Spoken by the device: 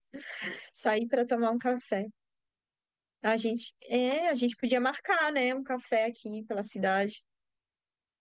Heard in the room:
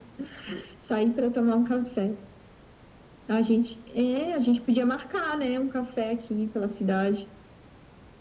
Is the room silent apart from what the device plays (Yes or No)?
Yes